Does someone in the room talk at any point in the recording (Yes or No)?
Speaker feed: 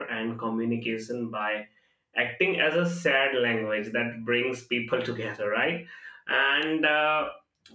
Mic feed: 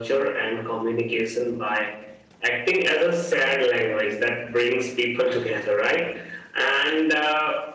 No